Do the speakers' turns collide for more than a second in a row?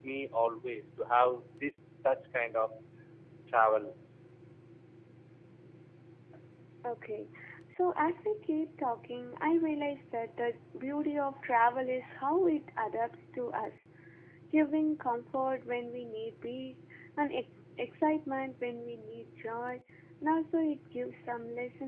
No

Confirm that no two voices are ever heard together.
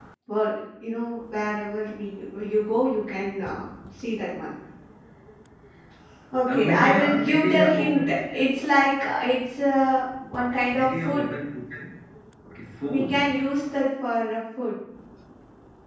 No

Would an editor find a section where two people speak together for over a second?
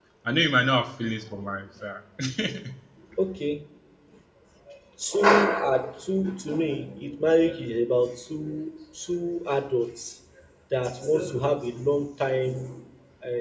No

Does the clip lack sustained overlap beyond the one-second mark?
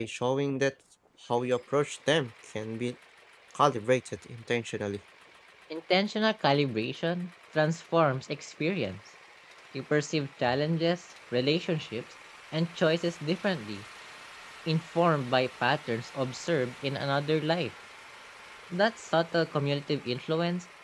Yes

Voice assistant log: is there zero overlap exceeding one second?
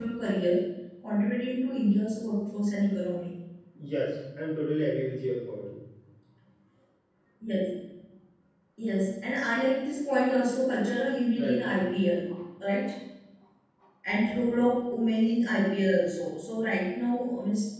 Yes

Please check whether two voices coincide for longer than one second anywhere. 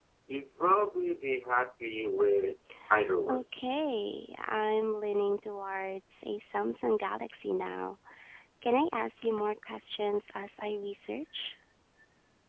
No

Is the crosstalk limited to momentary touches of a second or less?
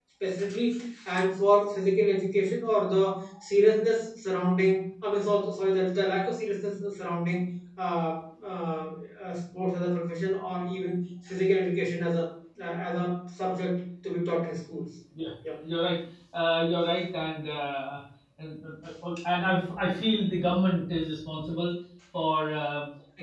Yes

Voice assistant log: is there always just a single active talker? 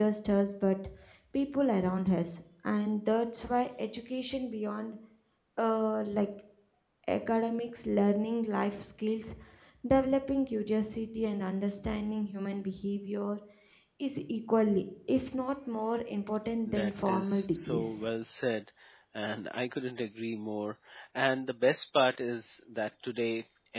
No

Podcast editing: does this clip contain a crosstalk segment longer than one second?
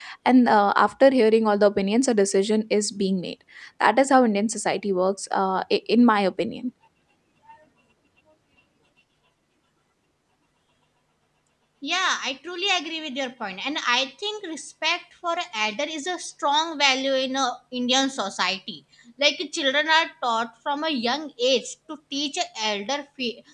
No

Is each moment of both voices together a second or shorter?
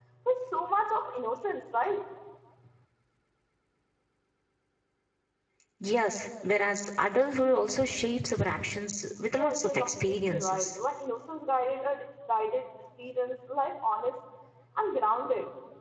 No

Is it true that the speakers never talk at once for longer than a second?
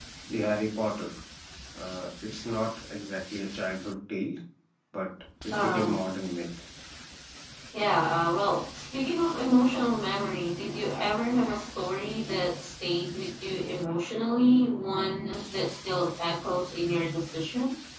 Yes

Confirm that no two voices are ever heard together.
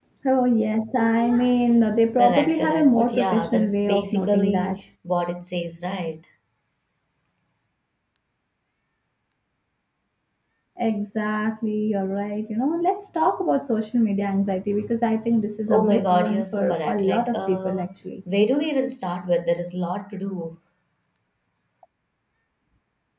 No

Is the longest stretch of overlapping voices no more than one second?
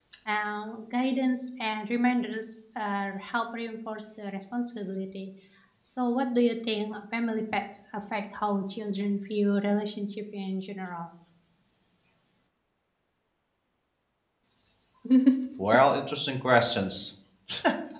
Yes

